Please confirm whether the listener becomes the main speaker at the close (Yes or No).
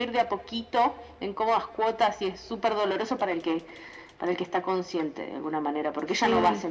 No